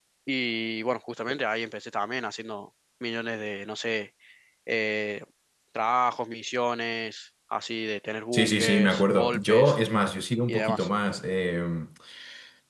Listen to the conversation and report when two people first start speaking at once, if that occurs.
8.3 s

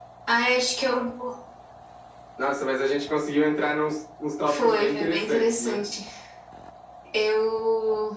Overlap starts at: 4.4 s

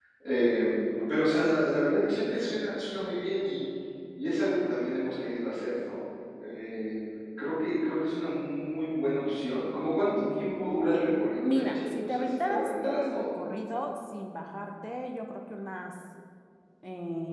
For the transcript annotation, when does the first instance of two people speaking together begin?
11.4 s

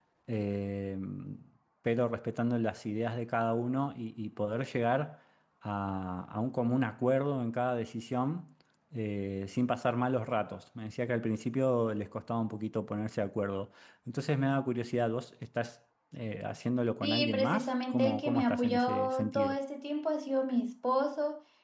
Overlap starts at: 17.0 s

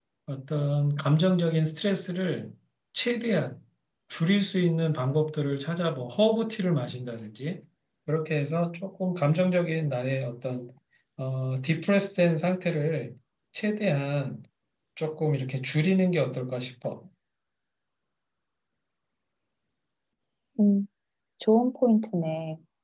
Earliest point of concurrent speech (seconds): none

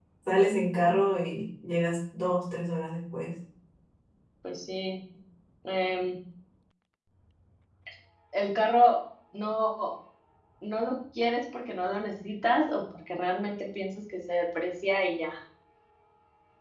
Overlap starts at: none

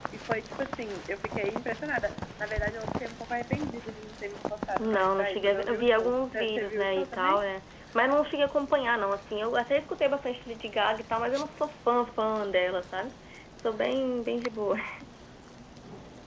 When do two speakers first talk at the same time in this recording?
4.8 s

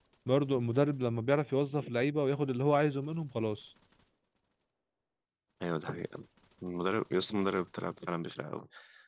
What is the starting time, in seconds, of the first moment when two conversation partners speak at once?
none

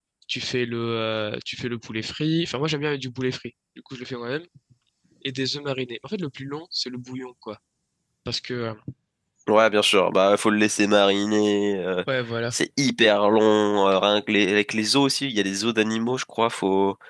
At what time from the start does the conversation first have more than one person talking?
none

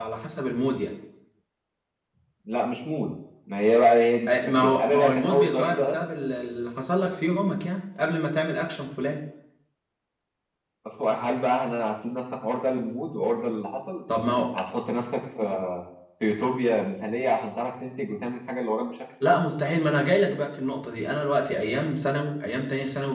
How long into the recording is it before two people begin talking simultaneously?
4.3 s

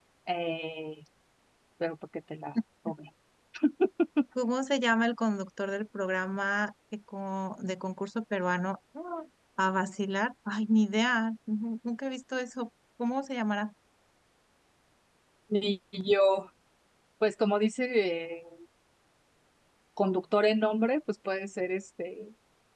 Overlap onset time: none

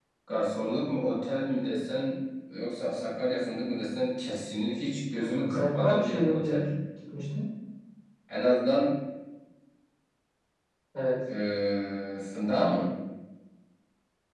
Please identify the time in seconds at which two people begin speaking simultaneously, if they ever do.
5.2 s

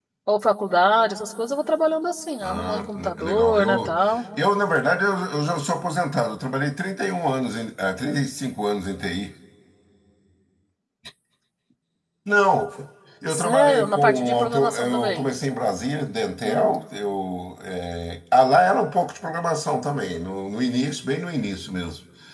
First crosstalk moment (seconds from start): 2.4 s

